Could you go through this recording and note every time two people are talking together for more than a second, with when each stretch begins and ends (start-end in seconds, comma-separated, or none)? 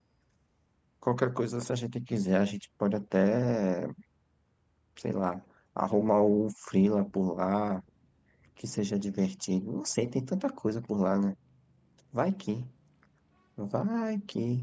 none